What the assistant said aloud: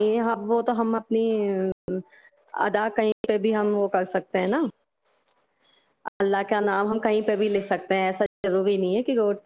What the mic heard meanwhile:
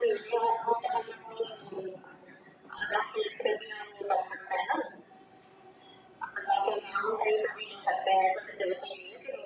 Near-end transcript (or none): none